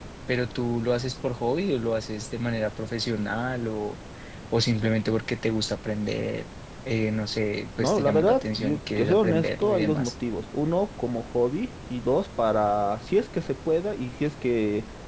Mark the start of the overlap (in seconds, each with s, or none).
7.8 s